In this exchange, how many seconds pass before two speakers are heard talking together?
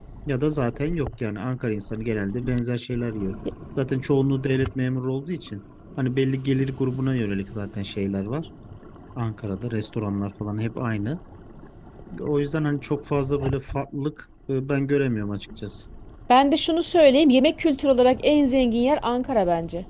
none

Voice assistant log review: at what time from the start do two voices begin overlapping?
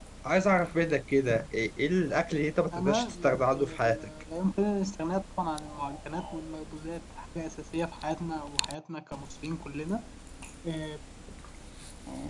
2.7 s

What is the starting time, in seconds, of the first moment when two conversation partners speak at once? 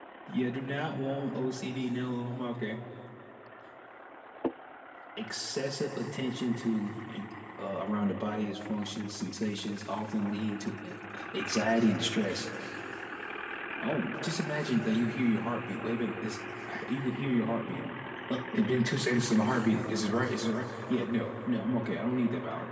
none

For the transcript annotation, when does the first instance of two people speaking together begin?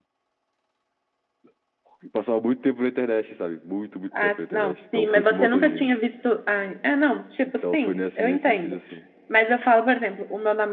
4.2 s

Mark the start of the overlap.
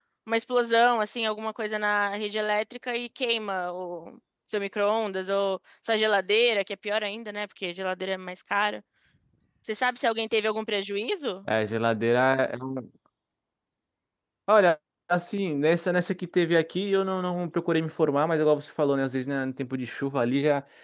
none

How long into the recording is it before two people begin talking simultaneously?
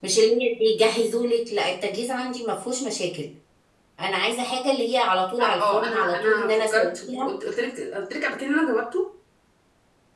5.4 s

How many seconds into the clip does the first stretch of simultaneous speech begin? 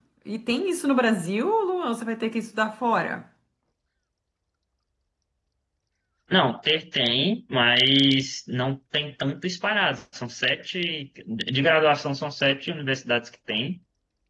none

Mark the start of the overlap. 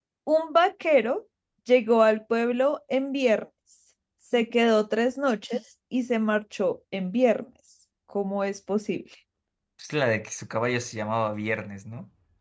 none

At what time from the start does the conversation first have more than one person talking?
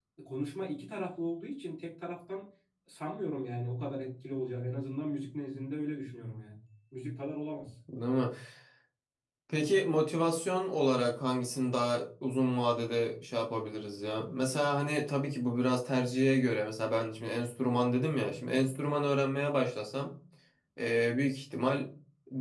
none

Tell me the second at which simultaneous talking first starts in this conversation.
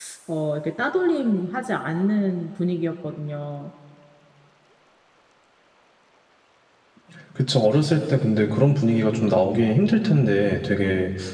none

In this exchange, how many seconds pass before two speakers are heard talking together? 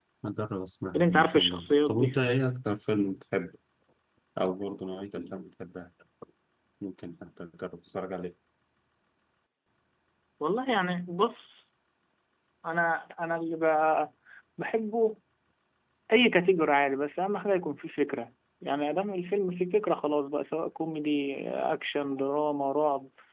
0.9 s

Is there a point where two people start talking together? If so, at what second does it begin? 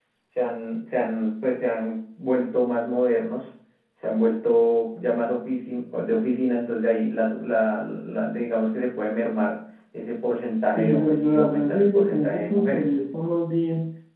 10.8 s

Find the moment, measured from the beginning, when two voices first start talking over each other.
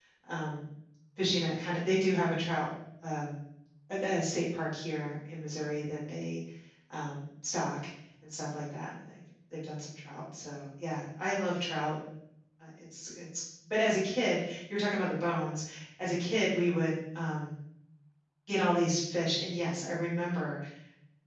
none

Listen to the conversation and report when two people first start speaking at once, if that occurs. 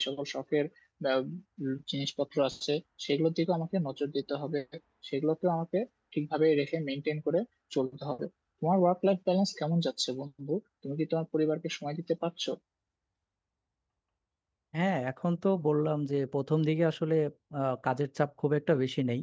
none

